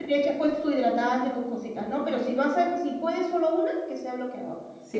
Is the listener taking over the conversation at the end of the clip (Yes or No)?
Yes